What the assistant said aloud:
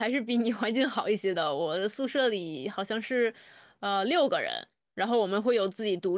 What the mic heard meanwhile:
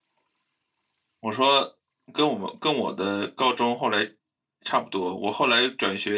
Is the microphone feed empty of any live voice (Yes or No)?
No